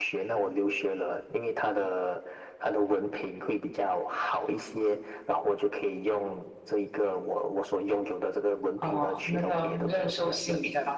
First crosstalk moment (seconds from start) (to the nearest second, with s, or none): 9 s